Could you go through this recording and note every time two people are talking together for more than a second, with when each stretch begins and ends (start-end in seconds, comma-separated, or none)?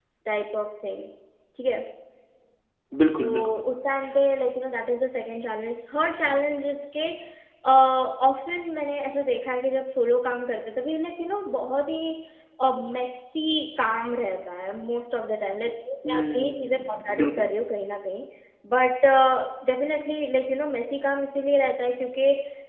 16.1-17.5